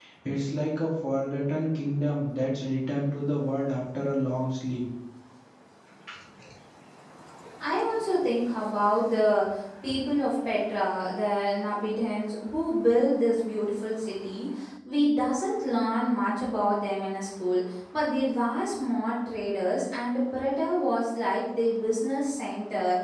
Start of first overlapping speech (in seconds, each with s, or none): none